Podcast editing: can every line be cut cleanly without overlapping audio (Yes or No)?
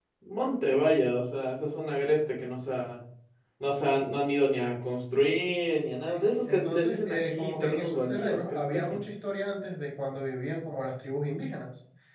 No